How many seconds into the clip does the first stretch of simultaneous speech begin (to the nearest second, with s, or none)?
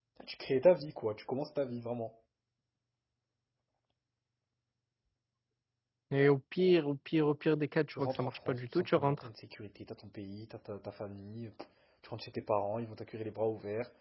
8 s